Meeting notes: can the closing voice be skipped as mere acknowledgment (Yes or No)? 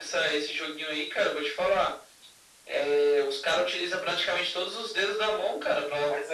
No